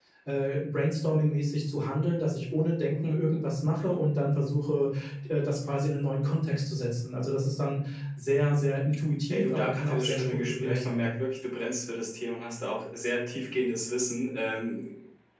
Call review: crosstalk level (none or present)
present